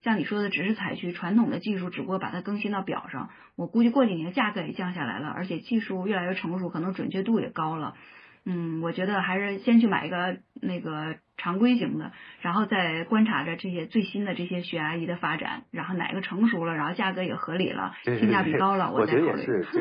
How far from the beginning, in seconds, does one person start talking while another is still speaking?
18.0 s

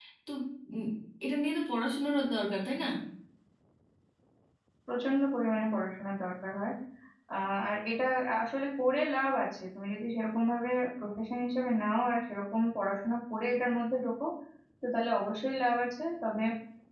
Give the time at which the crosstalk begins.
none

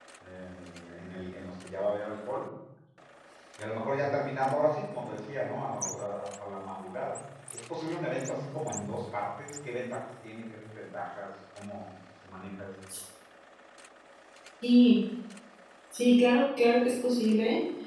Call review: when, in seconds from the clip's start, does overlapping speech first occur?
none

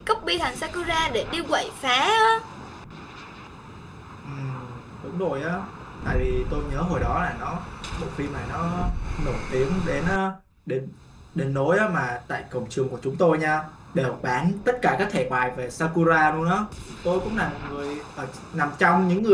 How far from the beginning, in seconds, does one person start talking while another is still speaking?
none

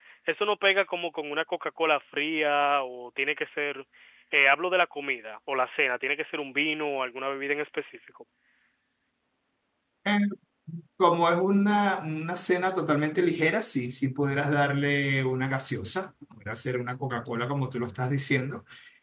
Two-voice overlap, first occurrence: none

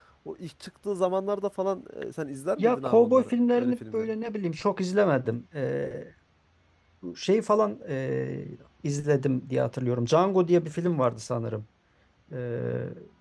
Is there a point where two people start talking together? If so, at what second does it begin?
2.6 s

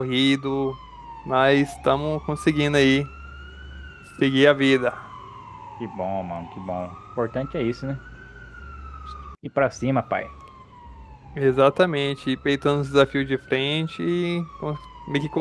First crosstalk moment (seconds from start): none

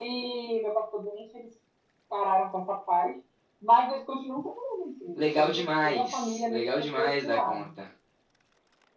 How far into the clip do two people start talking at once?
5.2 s

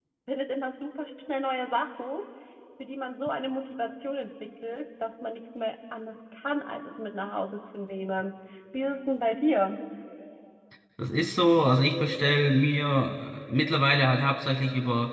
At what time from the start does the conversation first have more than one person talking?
none

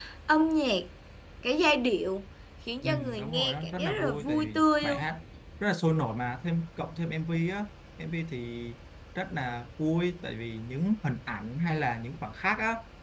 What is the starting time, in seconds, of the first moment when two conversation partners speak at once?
2.8 s

